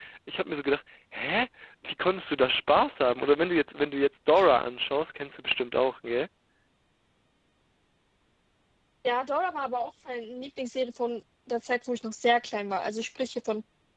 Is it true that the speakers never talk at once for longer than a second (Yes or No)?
Yes